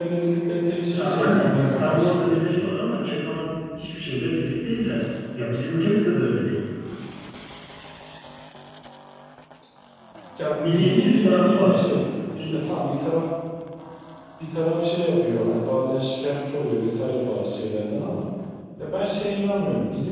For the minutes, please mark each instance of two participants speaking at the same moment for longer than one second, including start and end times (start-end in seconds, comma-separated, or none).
0.9-2.4, 10.5-11.8